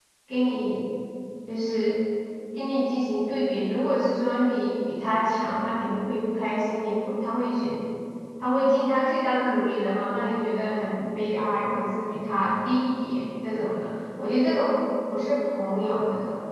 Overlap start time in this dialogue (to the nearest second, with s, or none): none